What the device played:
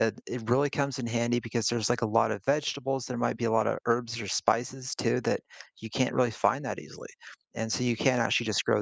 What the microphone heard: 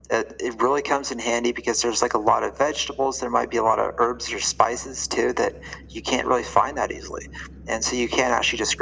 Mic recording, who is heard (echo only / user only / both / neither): echo only